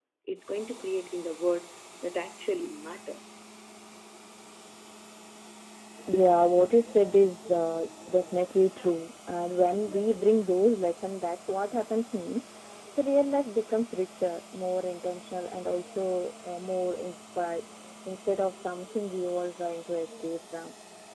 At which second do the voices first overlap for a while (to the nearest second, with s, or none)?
none